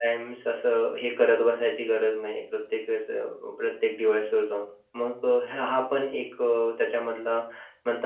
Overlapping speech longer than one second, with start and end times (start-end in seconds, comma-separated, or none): none